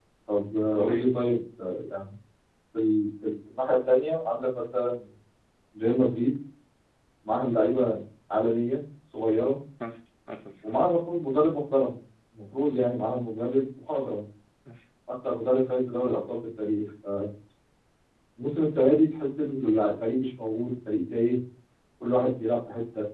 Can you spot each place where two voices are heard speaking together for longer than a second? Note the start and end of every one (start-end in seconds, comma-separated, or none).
none